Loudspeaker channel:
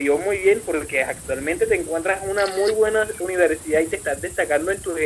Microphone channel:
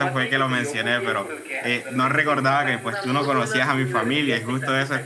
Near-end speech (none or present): present